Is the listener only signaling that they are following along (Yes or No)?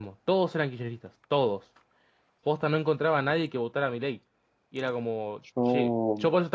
Yes